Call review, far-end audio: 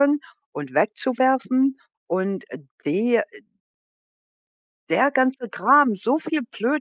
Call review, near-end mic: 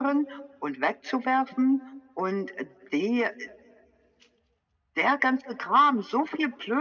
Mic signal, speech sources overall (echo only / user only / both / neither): echo only